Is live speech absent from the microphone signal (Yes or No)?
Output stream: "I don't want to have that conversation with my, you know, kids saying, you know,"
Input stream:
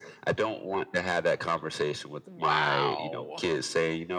No